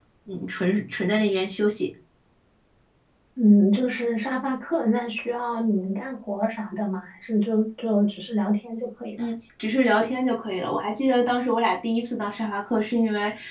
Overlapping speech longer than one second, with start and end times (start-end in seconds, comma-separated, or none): none